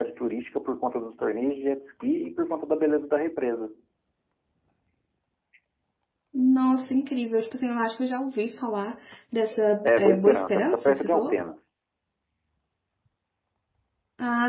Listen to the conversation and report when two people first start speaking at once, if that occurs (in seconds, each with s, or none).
9.8 s